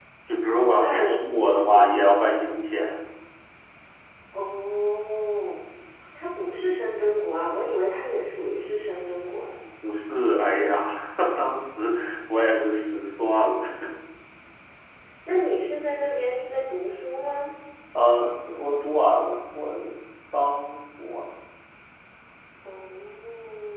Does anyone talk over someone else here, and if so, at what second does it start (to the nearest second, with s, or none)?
1 s